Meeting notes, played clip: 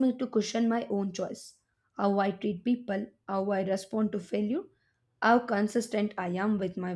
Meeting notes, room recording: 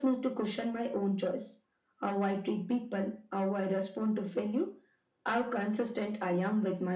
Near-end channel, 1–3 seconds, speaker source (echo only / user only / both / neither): echo only